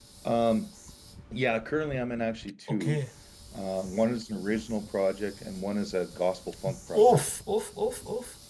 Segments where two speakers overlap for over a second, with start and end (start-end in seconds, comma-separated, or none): none